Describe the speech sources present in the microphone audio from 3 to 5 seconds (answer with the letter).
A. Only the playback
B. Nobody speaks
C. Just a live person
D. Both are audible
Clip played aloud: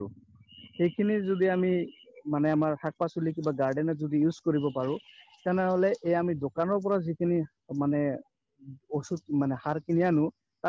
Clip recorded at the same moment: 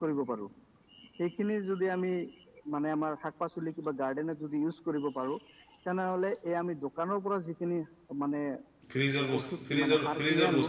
A